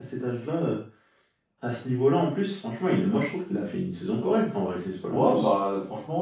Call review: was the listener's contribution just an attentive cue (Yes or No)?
No